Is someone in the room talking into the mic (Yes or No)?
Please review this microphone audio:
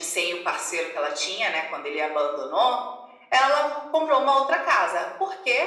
No